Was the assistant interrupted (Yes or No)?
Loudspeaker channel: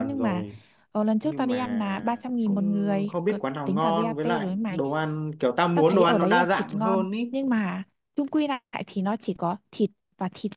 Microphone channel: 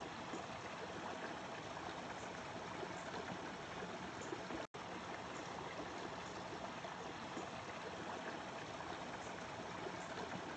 No